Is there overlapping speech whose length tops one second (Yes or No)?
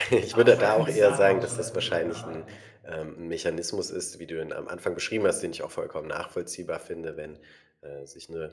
Yes